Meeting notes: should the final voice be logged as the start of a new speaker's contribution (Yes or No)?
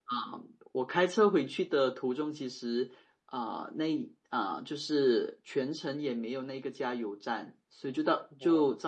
No